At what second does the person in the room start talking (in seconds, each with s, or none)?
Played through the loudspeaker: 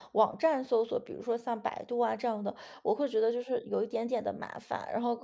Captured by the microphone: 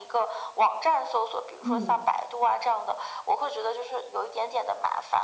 1.6 s